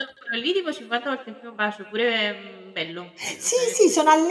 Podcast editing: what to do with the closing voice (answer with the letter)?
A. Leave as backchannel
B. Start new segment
B